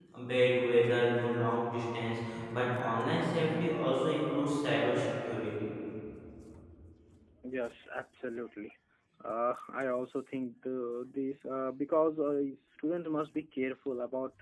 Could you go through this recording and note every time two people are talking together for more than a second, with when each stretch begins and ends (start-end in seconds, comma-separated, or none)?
none